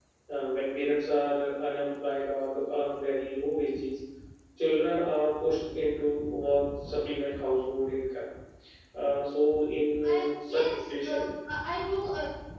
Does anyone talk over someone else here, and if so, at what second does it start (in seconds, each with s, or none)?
10.0 s